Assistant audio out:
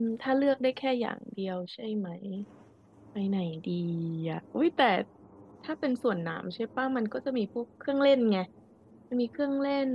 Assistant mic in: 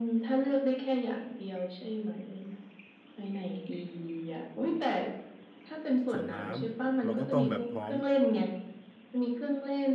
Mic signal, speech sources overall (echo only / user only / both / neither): both